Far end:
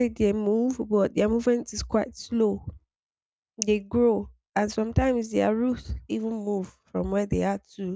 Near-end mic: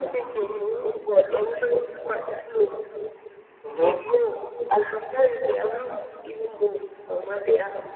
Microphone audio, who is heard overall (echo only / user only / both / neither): both